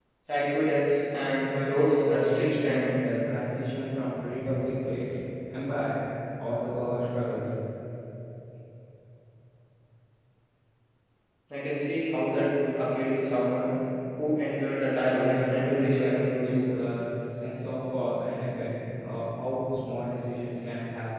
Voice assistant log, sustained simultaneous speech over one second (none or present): present